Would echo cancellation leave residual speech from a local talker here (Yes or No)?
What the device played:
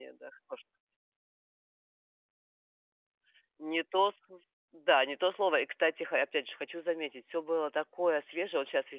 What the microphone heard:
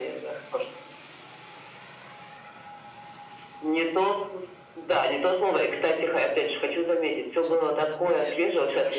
Yes